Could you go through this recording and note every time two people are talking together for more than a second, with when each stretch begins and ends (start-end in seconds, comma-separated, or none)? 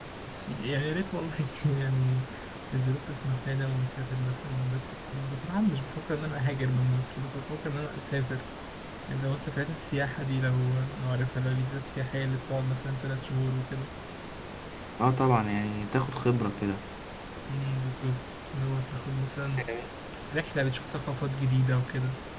none